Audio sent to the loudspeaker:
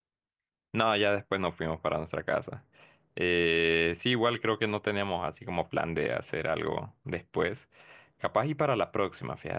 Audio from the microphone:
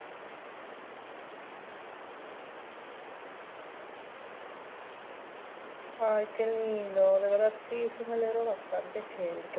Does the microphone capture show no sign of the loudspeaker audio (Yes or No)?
Yes